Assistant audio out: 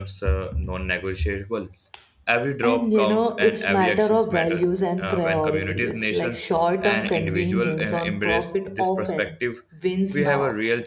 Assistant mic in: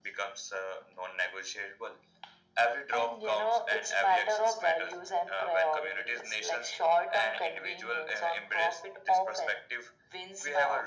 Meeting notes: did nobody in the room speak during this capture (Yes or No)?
Yes